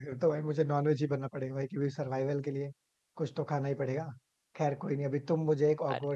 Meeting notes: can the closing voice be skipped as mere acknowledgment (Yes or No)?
Yes